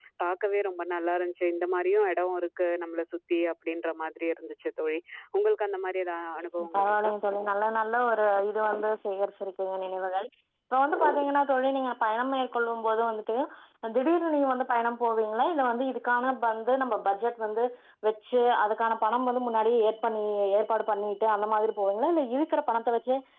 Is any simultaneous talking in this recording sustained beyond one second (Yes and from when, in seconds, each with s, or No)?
No